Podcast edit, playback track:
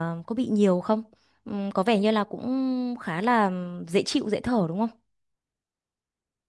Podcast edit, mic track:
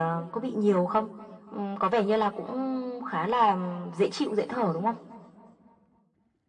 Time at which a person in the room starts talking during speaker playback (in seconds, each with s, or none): none